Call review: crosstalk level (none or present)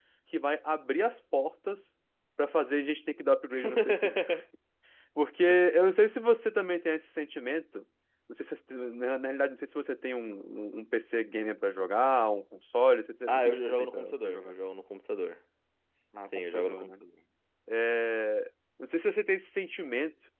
present